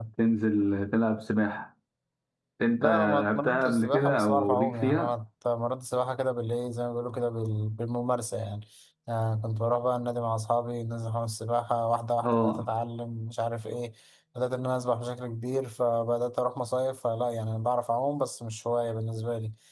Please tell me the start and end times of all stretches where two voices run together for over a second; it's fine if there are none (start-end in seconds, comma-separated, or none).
2.8-5.1